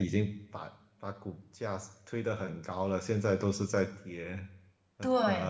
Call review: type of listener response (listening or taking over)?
taking over